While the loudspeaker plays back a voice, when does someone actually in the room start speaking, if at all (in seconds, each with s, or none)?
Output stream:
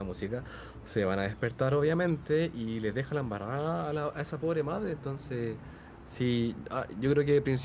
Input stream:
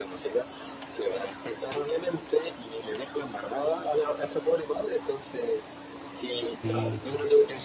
6.6 s